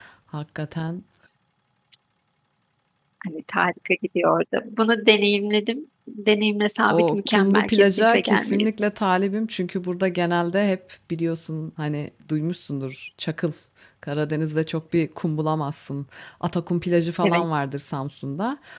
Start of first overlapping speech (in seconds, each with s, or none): 6.9 s